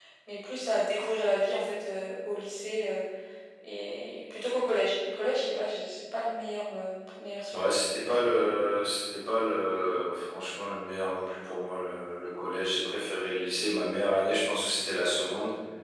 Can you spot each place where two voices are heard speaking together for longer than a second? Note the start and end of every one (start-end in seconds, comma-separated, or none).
none